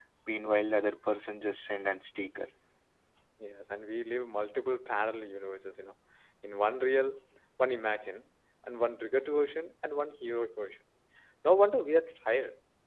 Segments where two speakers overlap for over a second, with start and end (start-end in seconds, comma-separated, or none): none